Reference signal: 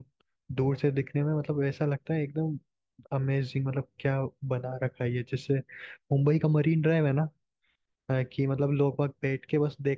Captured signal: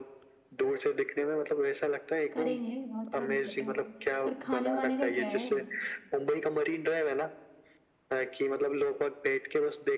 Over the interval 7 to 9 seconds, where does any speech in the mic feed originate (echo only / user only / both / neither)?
echo only